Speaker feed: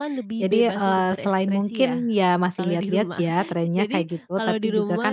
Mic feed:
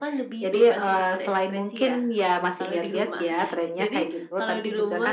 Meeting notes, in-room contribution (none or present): none